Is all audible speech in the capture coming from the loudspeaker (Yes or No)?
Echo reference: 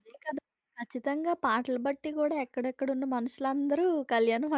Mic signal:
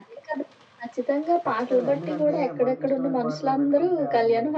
No